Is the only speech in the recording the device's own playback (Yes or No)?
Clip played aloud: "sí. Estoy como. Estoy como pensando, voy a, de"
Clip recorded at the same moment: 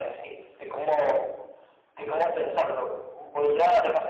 Yes